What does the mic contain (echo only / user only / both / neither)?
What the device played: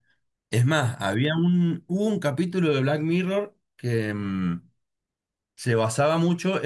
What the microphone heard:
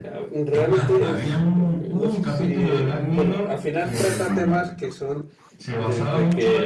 both